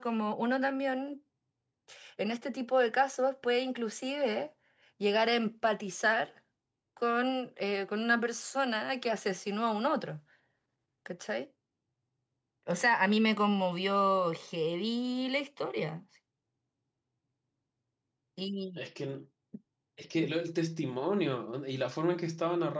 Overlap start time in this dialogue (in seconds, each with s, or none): none